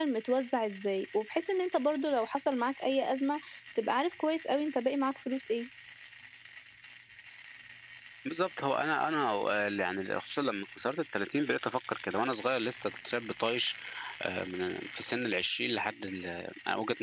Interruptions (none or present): none